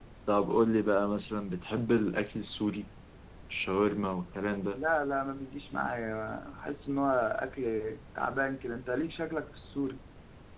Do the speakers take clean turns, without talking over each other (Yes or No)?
Yes